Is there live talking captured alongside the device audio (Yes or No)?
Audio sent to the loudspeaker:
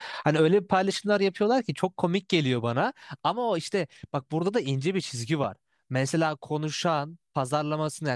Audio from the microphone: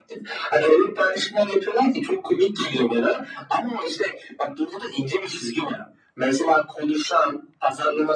No